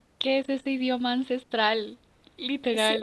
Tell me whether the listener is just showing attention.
No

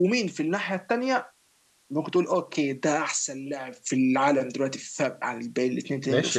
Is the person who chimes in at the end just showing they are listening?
No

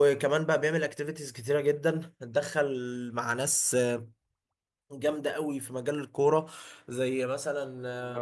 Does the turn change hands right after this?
Yes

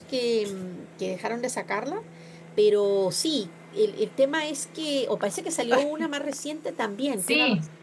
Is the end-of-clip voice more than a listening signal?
Yes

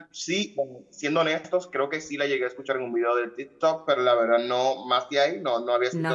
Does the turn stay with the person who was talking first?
No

